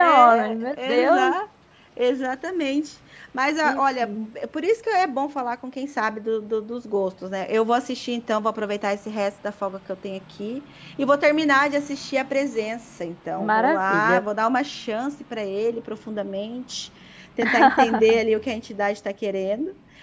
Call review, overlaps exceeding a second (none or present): present